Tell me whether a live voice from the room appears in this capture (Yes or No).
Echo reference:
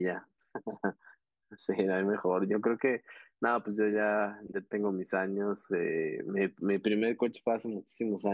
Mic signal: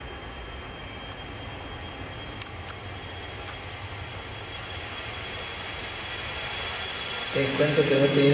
Yes